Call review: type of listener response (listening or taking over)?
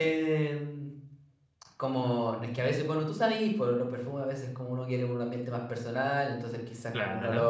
listening